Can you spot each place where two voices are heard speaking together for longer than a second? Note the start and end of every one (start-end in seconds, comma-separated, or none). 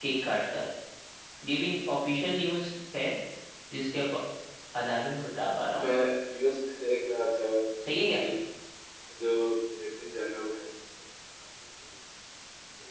none